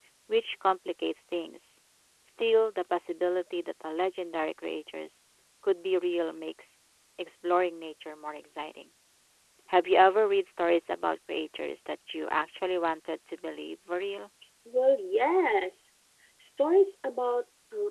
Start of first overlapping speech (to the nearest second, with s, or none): none